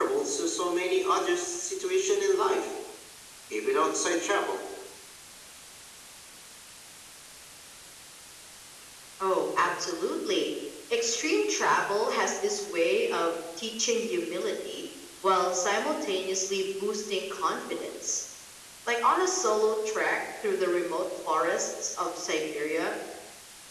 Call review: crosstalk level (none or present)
none